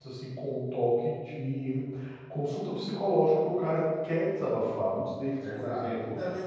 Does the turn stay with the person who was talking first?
No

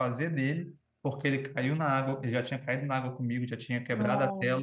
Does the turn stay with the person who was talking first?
Yes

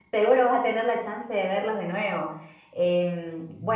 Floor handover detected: No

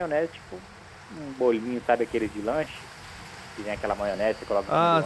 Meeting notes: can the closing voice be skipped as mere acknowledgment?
No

